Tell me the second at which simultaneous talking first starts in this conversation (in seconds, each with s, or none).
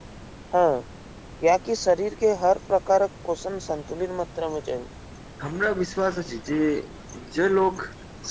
none